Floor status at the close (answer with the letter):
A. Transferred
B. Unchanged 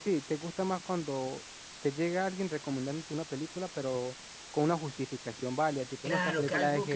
A